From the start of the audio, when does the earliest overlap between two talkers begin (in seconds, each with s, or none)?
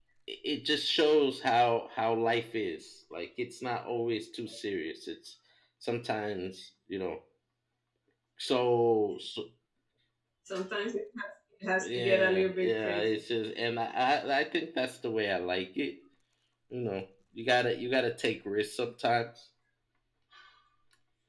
11.8 s